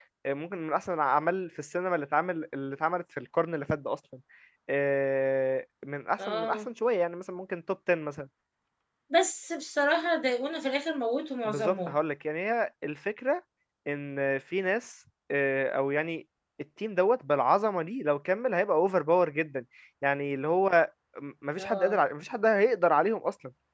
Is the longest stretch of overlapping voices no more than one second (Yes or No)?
Yes